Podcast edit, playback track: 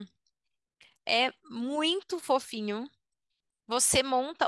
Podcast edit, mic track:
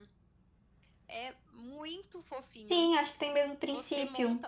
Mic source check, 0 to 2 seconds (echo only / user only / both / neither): echo only